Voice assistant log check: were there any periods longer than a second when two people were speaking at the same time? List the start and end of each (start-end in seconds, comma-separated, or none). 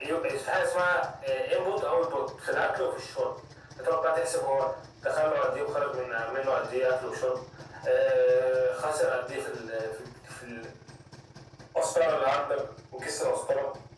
none